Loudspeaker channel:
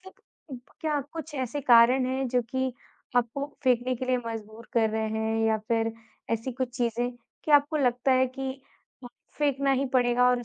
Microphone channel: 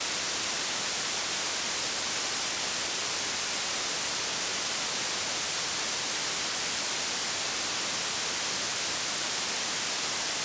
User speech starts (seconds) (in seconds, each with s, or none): none